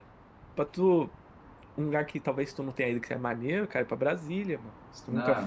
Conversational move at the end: taking over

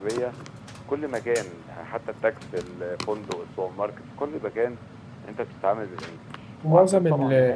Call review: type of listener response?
taking over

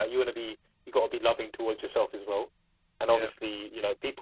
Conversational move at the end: listening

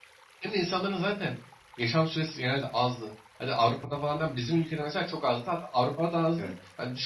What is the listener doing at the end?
listening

